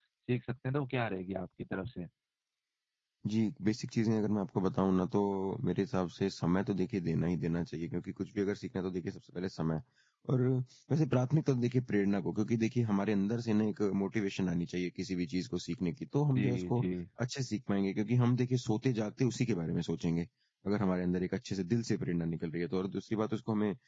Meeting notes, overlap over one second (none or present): none